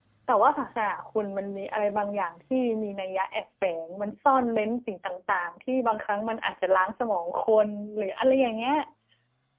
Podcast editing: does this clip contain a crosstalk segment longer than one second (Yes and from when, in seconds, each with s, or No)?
No